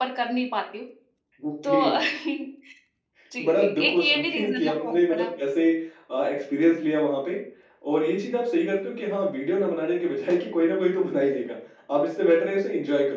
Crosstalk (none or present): present